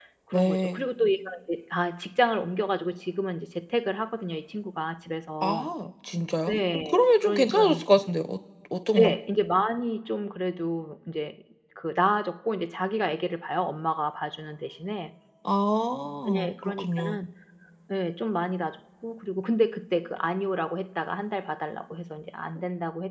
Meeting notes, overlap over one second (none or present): present